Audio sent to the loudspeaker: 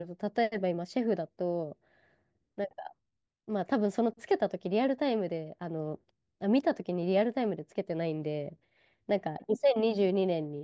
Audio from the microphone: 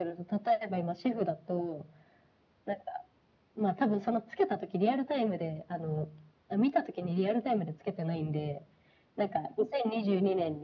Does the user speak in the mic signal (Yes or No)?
No